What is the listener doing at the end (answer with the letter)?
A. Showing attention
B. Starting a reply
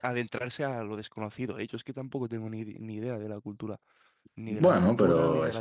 B